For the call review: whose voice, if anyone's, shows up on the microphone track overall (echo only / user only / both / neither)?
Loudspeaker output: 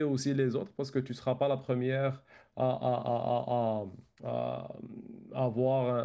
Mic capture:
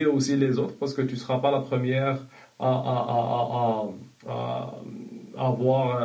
echo only